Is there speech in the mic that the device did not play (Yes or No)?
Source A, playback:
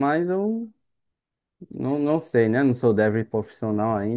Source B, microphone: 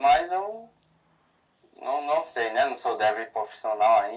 No